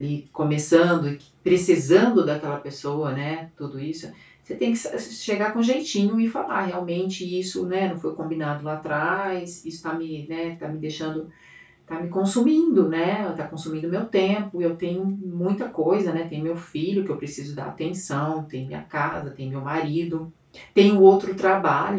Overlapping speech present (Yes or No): No